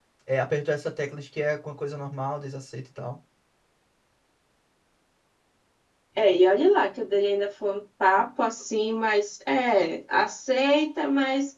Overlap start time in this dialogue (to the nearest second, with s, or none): none